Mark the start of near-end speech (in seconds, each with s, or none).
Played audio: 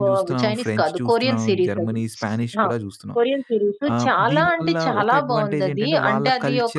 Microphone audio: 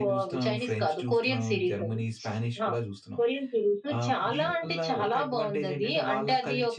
none